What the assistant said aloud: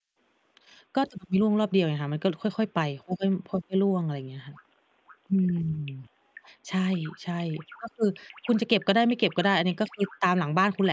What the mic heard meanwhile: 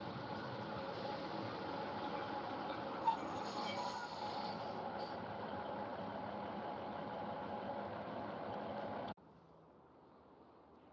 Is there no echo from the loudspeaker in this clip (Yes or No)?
Yes